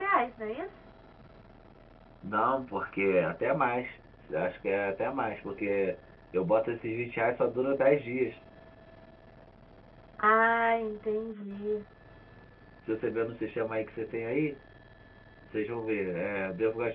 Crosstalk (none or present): none